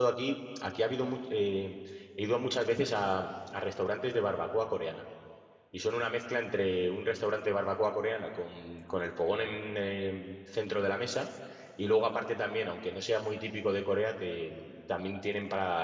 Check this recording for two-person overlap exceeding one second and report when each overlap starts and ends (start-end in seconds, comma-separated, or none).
none